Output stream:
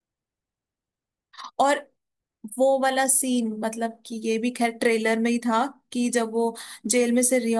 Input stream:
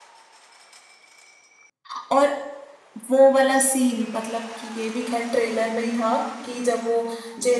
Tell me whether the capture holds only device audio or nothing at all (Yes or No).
Yes